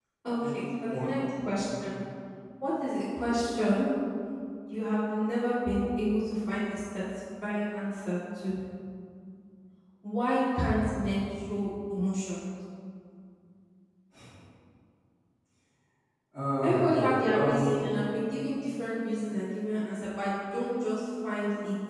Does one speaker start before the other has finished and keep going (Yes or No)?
Yes